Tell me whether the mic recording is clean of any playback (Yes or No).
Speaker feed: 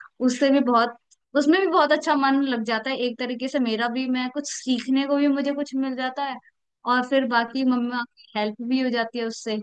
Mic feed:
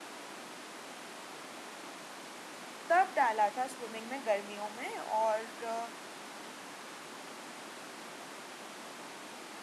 Yes